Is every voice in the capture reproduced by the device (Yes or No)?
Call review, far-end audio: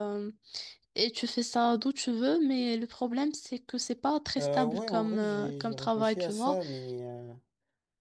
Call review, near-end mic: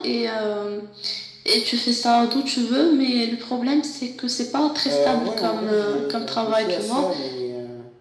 Yes